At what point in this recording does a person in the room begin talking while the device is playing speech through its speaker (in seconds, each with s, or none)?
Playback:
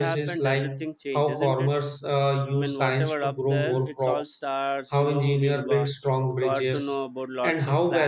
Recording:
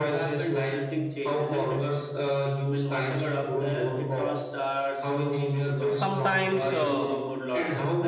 5.9 s